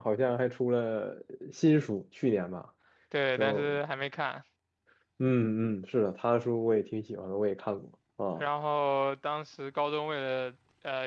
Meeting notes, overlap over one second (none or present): none